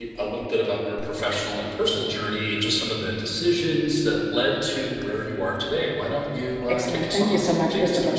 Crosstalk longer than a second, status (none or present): present